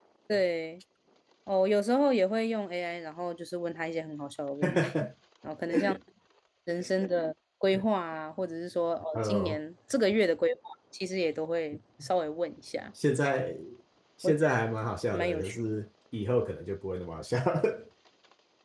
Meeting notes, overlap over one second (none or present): none